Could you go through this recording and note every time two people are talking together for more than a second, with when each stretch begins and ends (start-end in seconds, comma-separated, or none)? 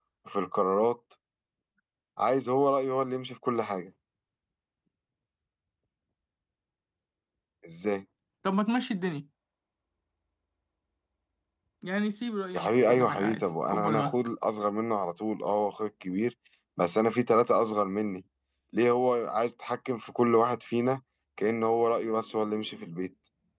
12.5-14.2